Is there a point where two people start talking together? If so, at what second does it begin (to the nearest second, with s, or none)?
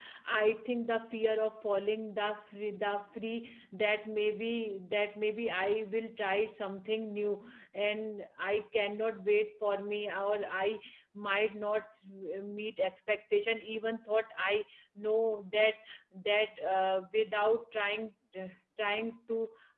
none